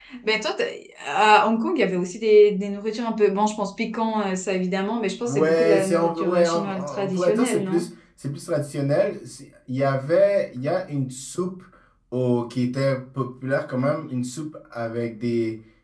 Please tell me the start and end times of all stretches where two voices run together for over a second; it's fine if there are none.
5.2-7.9

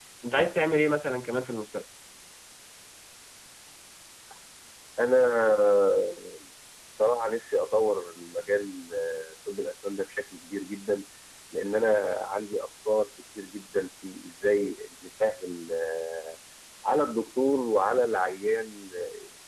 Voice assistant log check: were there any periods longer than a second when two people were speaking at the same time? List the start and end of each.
none

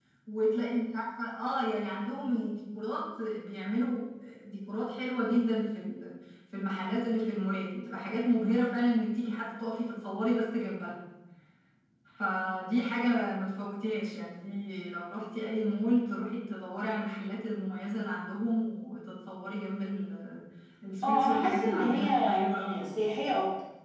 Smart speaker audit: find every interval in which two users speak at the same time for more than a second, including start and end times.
21.0-22.9

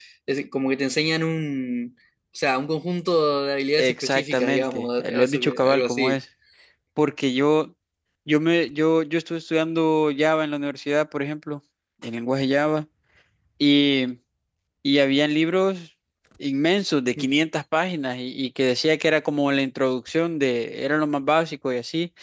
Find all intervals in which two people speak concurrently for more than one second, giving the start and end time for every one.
3.7-6.2

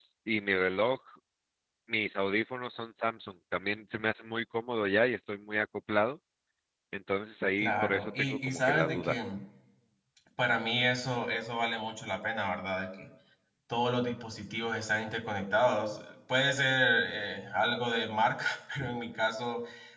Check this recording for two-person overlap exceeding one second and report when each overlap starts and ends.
7.6-9.2

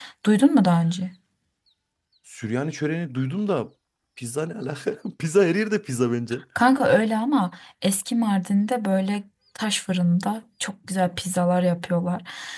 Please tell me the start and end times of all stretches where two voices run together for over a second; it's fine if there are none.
none

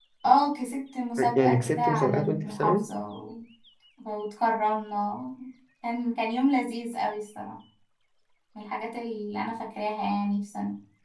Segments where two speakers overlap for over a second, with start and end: 1.4-2.9

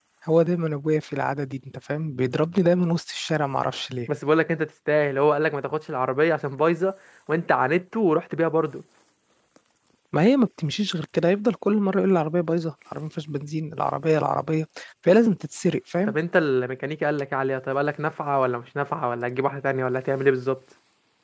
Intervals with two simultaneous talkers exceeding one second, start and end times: none

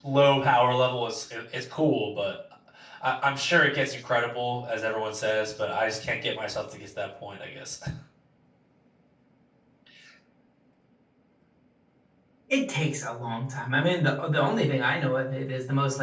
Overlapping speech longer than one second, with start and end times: none

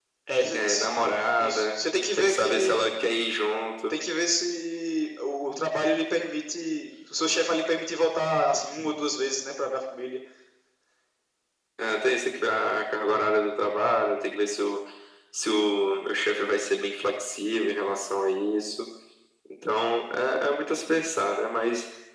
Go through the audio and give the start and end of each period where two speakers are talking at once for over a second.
1.4-2.9

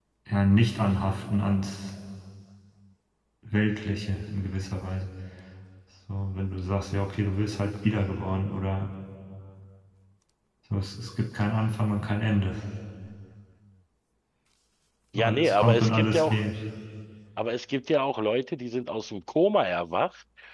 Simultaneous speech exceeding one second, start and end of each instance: 15.2-16.4

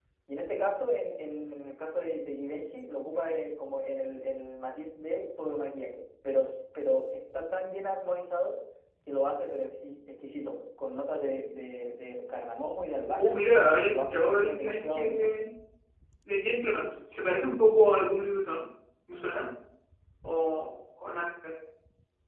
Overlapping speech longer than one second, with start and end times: 13.9-15.3

